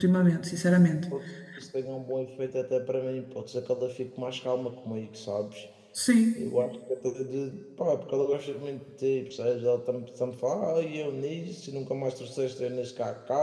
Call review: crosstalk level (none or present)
none